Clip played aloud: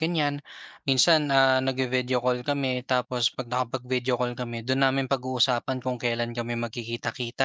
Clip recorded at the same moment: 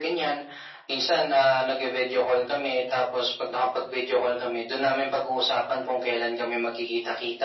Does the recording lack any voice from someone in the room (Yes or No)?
Yes